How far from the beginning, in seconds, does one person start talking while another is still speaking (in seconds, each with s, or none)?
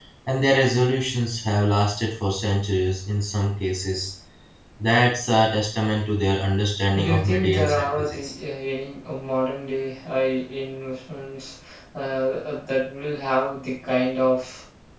6.9 s